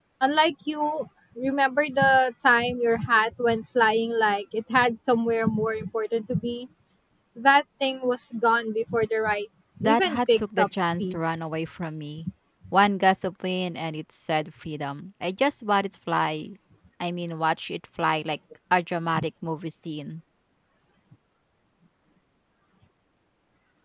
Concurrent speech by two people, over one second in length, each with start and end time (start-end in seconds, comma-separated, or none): 9.8-11.2